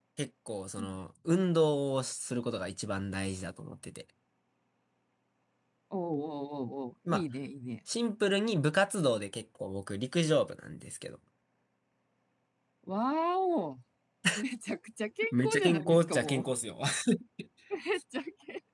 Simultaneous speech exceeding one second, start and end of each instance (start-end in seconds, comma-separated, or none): 15.3-16.5